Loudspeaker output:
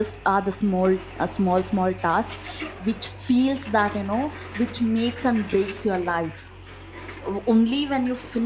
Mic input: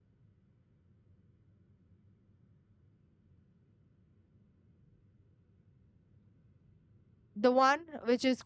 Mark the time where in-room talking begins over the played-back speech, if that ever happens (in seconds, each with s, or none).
7.3 s